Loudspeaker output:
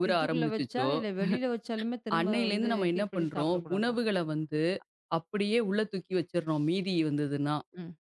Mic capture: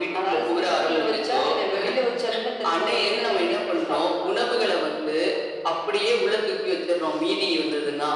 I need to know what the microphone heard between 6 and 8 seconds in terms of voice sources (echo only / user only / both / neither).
echo only